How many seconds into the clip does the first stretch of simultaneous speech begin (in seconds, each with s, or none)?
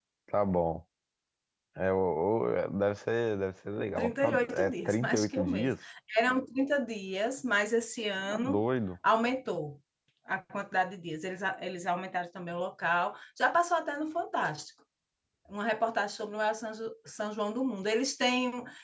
4.0 s